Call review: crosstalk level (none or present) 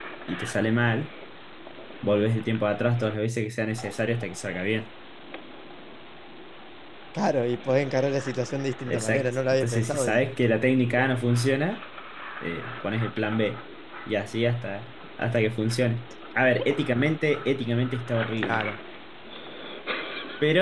present